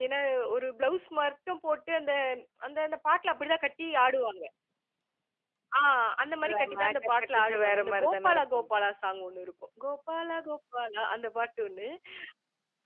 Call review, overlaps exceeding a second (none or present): present